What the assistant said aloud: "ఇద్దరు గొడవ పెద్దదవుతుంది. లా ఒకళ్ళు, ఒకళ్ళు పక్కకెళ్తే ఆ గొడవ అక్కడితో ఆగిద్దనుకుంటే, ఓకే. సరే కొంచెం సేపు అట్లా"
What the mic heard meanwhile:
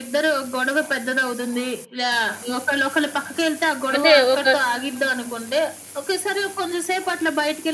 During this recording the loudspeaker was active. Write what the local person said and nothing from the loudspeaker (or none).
అంటే ఒక,